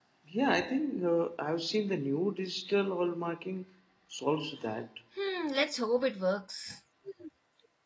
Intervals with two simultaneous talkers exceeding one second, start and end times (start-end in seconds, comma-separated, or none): none